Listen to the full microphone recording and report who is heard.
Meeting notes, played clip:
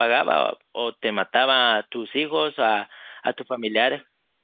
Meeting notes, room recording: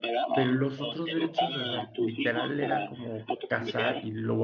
both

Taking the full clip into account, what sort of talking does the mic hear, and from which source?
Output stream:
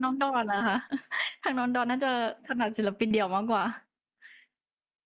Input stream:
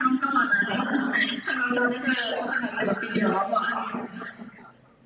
echo only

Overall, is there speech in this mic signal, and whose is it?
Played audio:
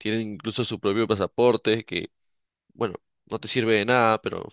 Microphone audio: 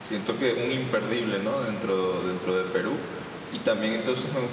user only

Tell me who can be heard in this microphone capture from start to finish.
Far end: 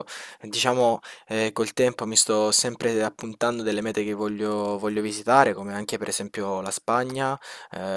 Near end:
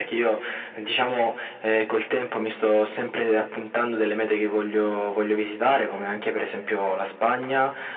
echo only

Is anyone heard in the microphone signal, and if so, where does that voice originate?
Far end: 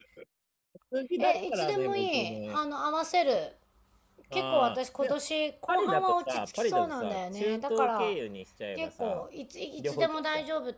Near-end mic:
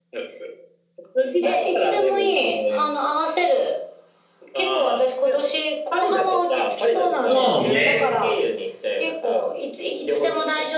both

